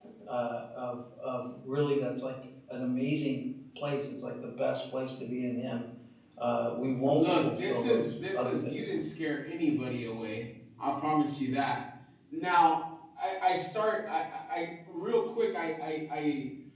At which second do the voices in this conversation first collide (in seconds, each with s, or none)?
7.2 s